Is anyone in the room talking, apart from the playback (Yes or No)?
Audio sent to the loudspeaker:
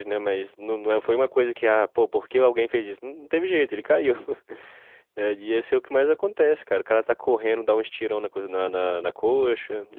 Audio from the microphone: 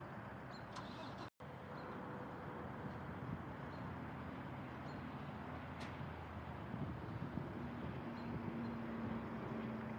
No